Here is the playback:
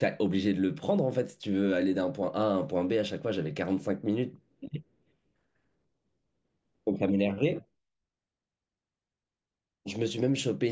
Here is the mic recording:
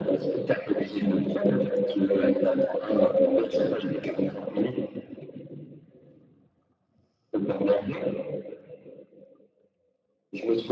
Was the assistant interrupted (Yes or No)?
No